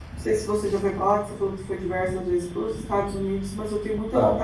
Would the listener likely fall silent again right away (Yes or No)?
Yes